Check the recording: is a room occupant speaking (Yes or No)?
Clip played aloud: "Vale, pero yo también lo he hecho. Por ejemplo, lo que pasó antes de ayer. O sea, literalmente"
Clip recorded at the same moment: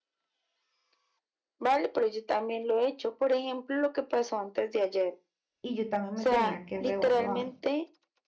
Yes